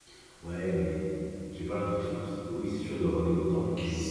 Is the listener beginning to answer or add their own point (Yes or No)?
Yes